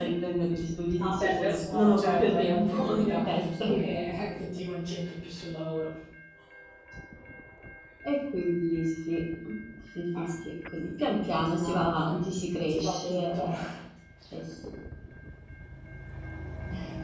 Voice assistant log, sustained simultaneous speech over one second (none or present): present